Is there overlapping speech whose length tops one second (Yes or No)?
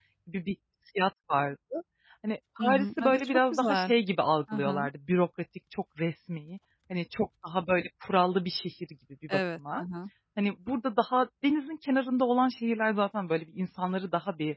Yes